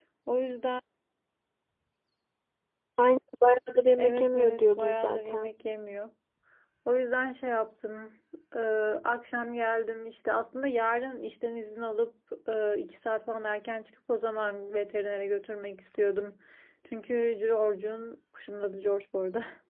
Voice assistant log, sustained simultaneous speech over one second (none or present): present